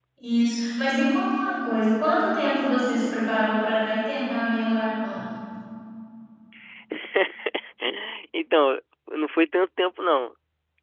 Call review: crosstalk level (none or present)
none